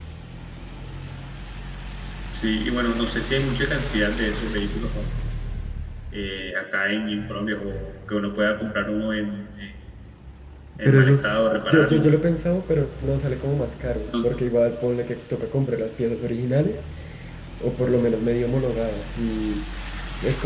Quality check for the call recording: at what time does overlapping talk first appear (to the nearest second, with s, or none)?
11 s